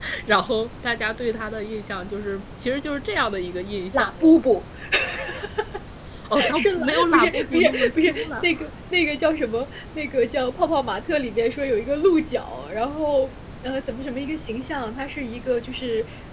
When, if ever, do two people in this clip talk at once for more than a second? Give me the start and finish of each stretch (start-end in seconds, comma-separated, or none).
6.5-8.4